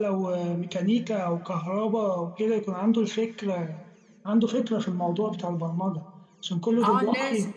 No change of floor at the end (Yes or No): No